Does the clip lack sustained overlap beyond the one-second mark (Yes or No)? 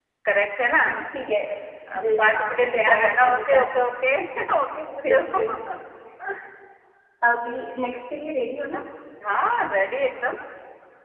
No